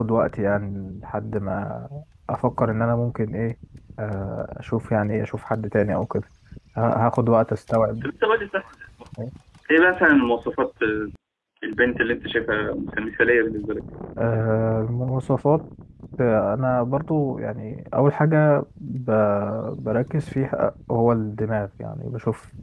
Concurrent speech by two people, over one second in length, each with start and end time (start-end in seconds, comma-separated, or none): none